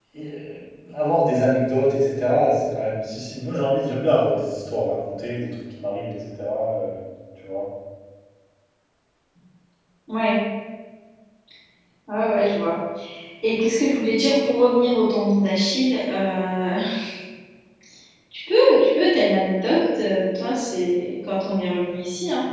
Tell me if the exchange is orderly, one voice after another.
Yes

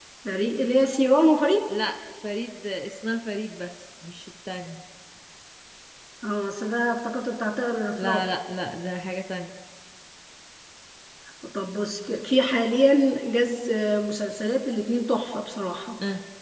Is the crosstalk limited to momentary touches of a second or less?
Yes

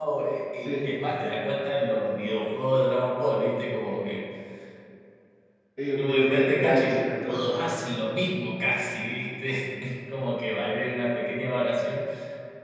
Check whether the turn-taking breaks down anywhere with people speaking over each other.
Yes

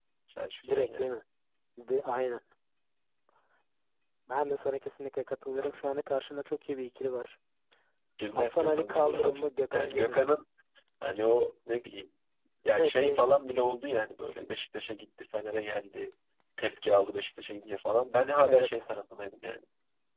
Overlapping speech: Yes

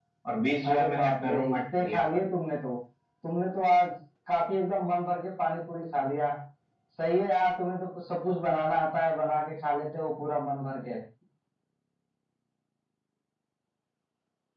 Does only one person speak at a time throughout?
No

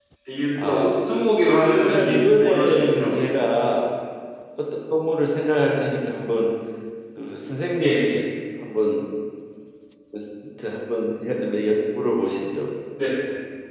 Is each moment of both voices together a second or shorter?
No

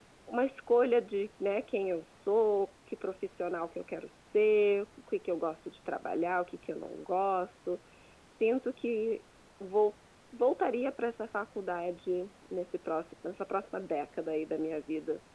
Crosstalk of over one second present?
No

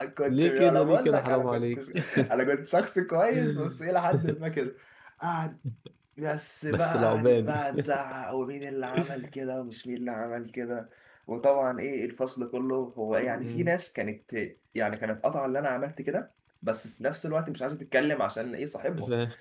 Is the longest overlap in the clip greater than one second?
Yes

